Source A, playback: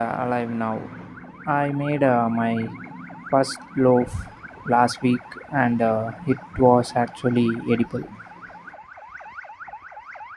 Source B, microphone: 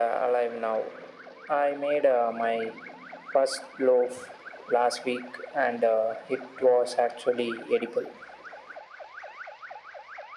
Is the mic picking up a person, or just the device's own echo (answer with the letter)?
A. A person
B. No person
B